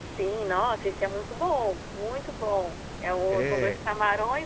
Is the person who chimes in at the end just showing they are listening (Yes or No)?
Yes